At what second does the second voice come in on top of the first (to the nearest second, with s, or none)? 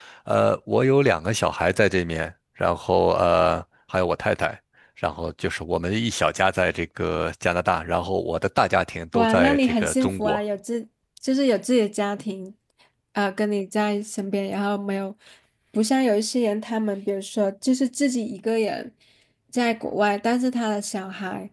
9 s